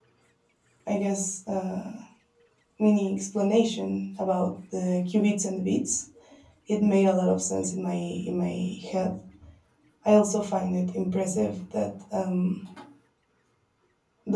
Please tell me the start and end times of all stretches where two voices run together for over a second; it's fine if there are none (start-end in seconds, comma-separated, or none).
none